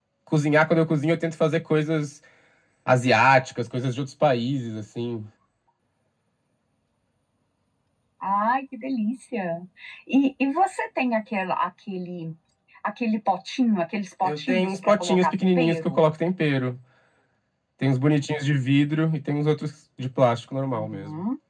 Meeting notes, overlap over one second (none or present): present